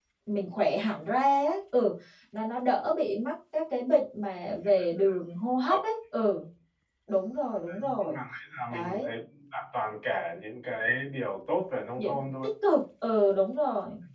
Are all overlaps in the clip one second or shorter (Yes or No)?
Yes